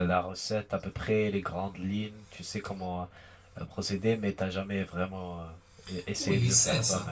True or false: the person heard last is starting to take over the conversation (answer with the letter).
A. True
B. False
A